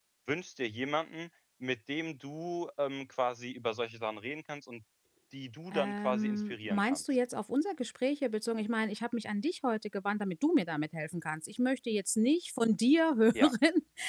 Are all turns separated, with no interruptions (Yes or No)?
No